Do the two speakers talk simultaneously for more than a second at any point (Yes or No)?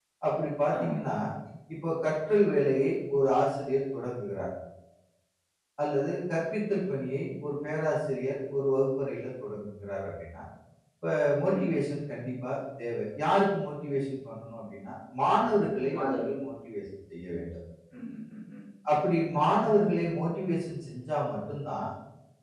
No